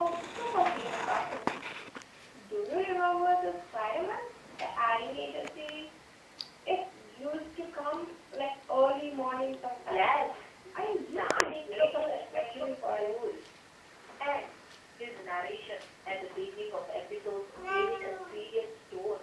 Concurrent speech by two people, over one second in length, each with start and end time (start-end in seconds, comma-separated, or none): 9.1-10.3, 11.2-13.1